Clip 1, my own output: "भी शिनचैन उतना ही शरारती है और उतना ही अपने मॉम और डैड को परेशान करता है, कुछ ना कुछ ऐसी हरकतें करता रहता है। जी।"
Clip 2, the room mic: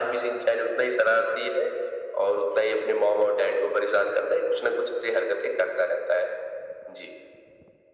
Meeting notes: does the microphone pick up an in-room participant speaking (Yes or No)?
No